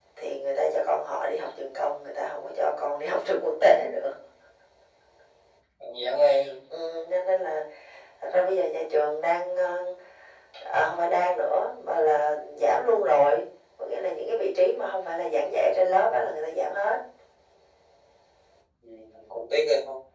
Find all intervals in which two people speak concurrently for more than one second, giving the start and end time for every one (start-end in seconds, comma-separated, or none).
none